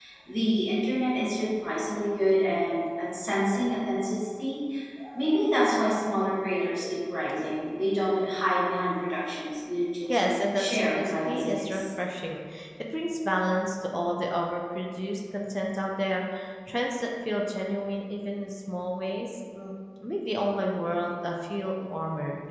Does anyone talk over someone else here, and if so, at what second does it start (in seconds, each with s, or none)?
10.1 s